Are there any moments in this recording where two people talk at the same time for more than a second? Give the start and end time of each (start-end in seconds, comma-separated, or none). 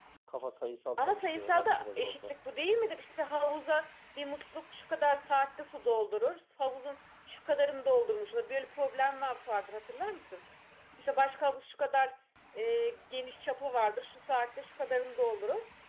1.0-2.3